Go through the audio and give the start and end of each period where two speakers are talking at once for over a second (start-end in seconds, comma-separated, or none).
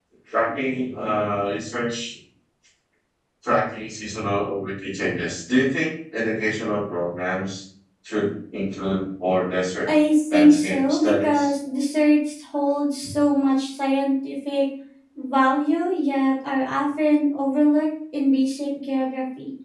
10.3-11.5